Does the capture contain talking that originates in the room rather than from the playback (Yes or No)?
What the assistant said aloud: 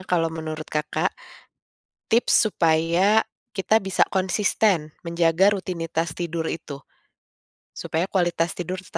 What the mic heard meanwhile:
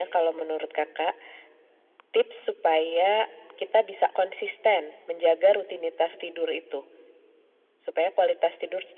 No